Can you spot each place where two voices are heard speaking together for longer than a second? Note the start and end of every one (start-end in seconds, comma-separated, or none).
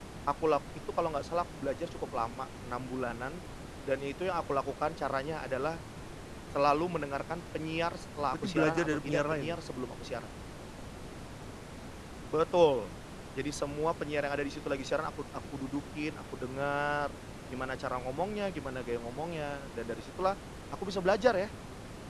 8.3-9.6